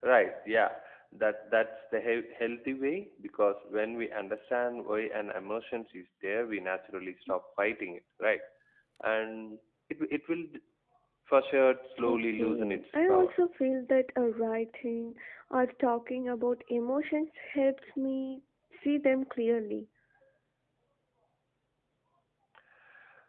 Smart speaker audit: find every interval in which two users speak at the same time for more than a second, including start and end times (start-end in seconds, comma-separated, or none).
12.1-13.4